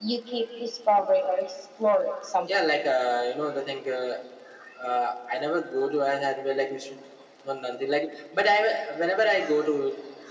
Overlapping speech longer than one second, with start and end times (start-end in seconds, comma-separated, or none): none